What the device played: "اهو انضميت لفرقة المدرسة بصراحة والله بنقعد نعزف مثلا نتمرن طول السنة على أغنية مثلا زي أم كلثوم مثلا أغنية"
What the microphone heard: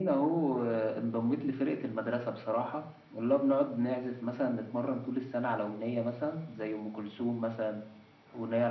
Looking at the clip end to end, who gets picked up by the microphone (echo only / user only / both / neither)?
echo only